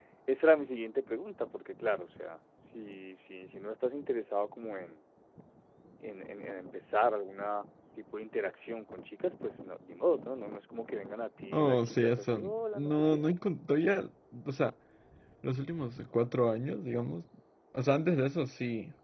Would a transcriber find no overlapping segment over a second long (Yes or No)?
No